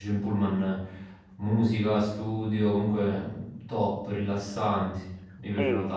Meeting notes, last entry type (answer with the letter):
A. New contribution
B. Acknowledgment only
A